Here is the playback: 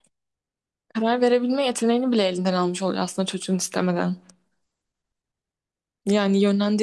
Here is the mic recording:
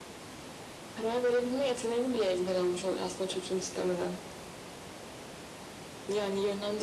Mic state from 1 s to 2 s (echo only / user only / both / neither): echo only